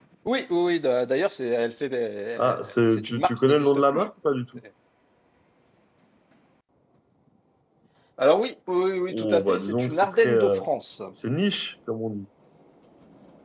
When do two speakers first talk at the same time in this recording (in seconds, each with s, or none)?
2.4 s